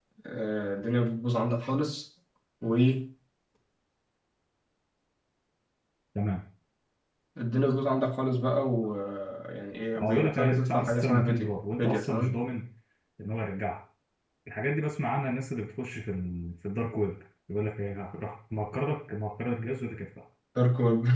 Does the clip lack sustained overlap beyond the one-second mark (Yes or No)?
No